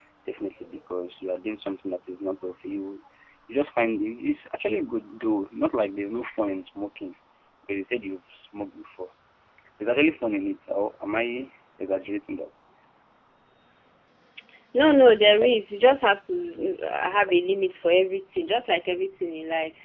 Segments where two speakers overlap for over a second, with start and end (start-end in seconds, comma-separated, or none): none